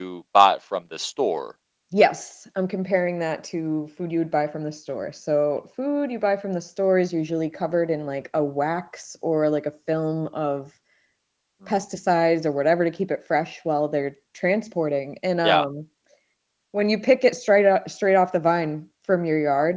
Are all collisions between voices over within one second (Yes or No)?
Yes